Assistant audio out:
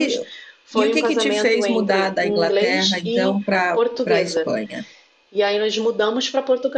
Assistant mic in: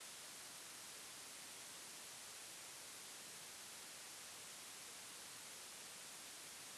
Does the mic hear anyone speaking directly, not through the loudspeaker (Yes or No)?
No